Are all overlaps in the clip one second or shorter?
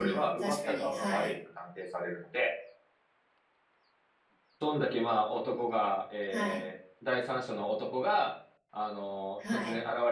No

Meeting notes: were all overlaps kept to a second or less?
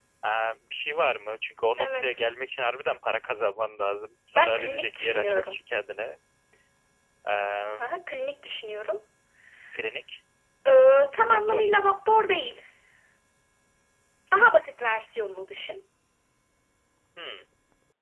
No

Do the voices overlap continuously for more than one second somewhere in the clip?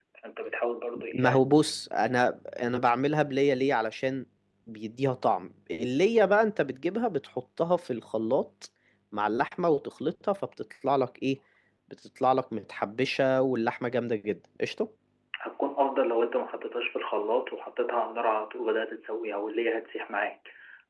No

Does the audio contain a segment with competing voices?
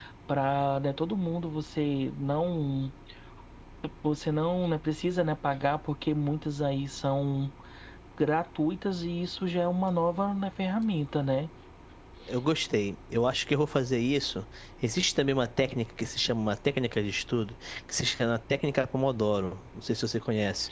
No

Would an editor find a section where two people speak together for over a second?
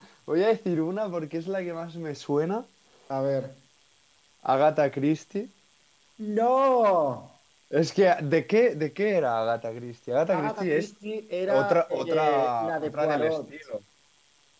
Yes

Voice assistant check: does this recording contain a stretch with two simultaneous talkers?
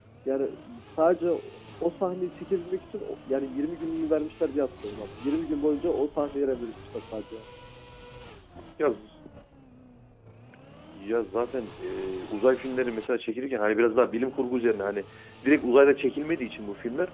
No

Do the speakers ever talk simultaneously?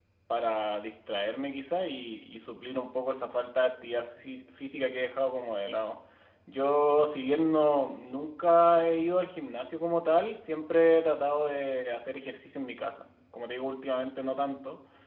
No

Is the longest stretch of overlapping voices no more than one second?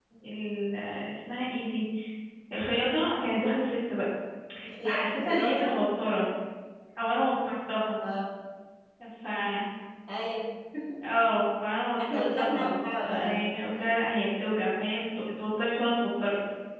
No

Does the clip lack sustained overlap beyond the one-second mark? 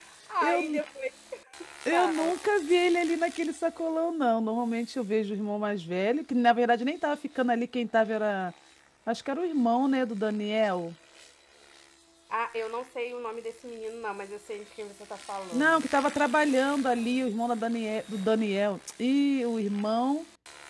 Yes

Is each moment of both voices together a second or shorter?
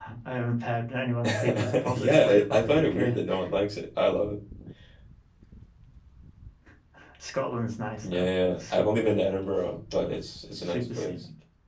No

